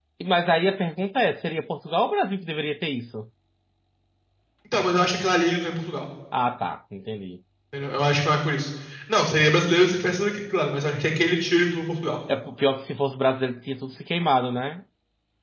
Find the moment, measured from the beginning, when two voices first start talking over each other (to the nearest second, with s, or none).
none